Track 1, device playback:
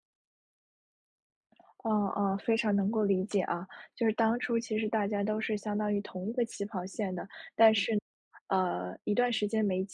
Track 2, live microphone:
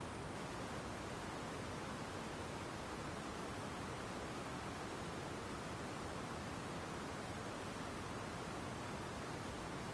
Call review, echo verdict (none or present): none